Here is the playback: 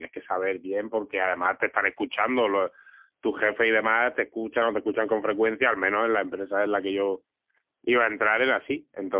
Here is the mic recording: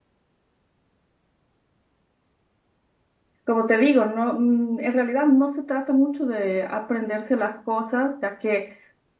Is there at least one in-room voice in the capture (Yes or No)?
Yes